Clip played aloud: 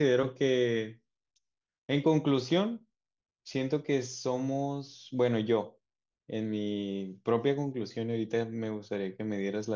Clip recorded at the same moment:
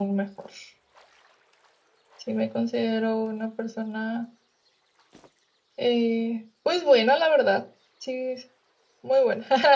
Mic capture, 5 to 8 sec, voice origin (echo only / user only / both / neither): user only